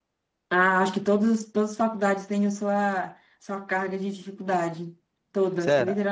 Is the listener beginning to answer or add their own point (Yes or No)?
Yes